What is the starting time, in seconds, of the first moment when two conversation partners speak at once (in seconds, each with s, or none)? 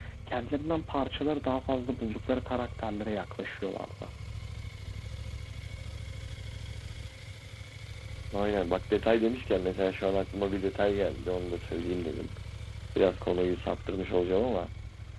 none